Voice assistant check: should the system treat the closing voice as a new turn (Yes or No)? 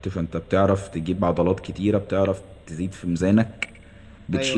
No